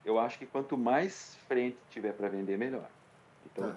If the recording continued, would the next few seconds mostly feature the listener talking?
Yes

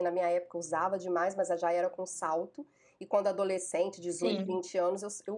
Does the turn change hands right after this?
No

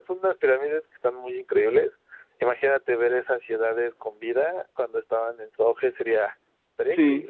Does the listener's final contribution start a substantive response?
Yes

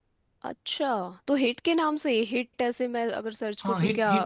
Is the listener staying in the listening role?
No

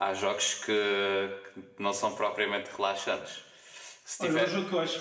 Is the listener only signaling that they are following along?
No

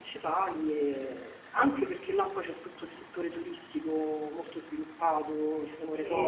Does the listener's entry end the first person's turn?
Yes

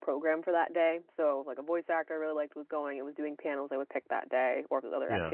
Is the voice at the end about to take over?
No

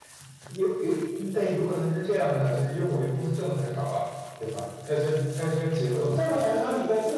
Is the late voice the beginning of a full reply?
Yes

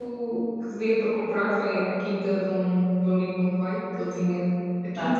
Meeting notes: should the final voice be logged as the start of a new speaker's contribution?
No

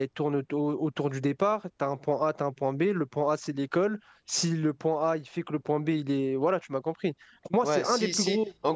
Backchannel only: No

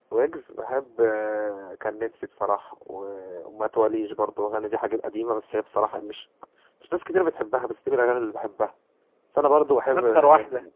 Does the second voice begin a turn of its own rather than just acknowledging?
No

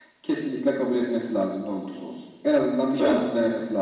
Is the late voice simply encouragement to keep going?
Yes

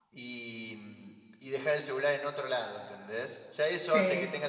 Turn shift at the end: No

